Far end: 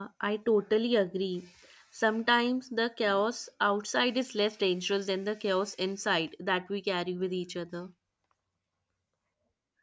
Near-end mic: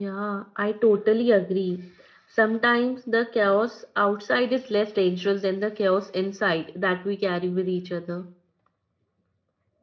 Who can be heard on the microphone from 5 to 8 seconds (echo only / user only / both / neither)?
echo only